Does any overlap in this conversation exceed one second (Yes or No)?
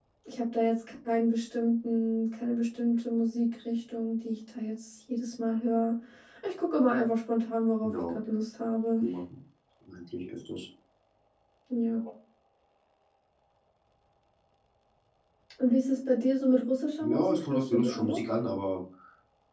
Yes